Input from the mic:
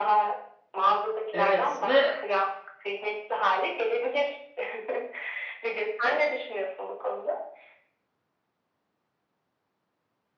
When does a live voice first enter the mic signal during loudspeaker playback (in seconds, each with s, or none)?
1.3 s